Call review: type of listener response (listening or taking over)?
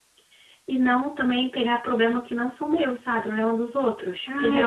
taking over